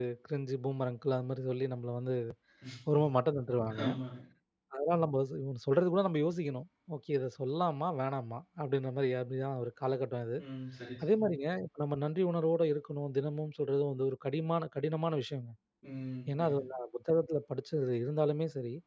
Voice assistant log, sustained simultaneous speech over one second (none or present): none